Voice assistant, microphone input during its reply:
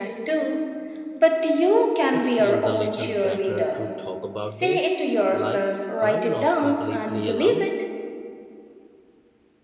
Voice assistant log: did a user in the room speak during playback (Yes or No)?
Yes